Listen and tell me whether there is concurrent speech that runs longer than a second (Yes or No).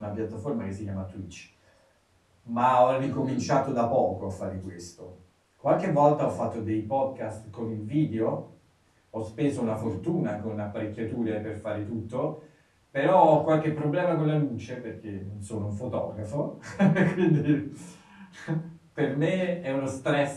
No